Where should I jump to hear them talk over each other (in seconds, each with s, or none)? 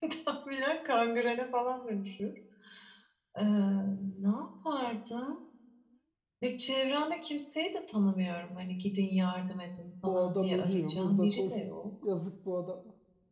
10.0 s